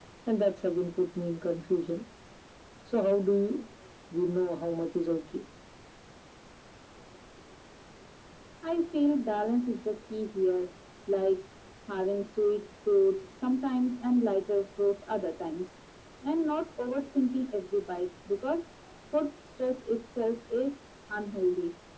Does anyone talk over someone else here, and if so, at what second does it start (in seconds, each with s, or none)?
none